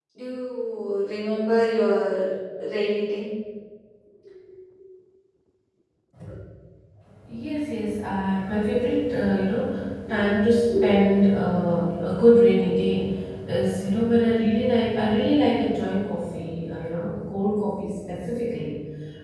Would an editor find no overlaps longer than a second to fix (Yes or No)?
Yes